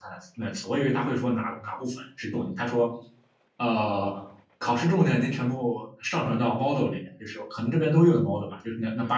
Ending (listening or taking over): listening